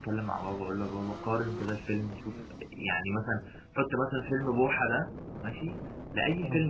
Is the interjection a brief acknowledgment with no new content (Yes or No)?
Yes